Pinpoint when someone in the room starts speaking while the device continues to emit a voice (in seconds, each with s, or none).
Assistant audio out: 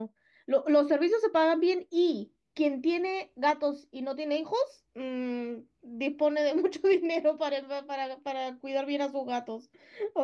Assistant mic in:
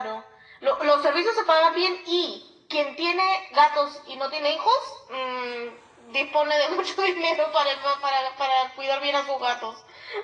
none